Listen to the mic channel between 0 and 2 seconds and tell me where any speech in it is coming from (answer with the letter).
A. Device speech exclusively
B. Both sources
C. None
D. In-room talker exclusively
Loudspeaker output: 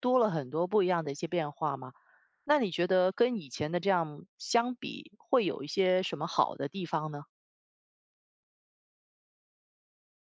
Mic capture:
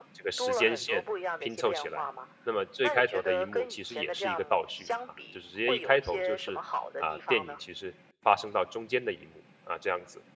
B